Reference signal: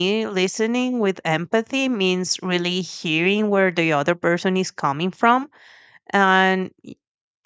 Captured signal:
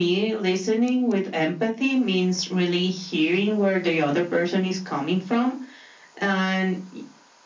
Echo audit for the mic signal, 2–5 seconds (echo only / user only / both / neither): echo only